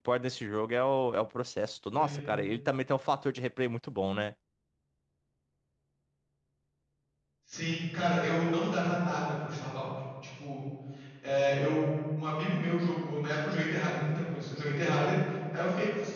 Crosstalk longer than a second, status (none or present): none